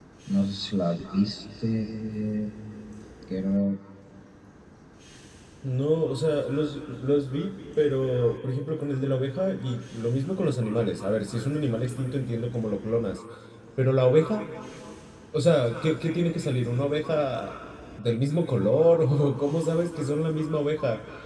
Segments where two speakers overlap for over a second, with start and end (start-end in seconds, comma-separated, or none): none